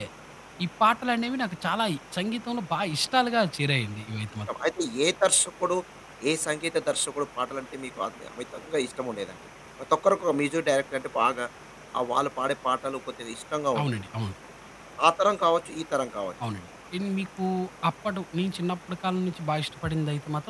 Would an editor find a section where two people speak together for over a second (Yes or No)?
No